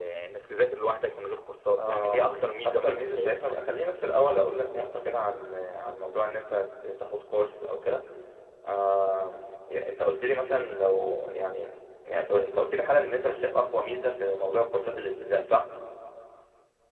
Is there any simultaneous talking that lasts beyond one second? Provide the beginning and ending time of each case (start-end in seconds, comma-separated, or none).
1.8-3.4